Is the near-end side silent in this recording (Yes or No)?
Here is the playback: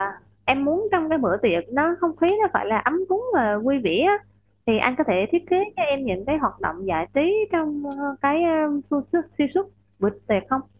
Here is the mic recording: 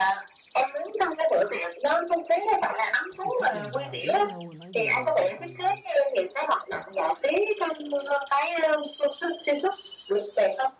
No